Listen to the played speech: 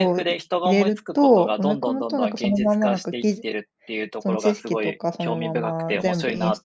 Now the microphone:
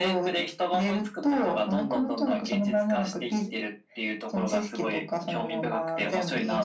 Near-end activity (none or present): none